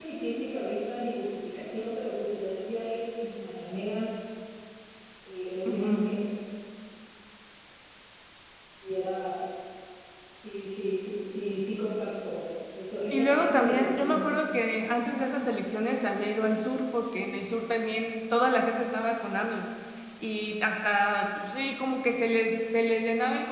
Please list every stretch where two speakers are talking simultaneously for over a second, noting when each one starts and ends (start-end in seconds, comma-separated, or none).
13.1-14.3